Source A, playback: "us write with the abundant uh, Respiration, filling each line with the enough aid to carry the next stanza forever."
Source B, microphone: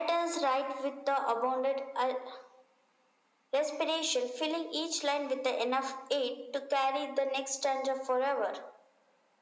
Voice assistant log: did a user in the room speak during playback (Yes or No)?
No